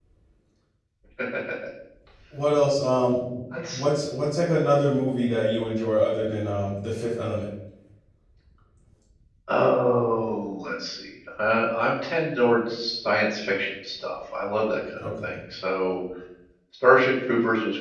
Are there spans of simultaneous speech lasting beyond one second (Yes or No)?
No